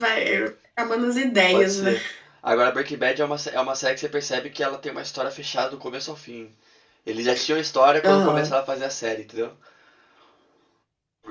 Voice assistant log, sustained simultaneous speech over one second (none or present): none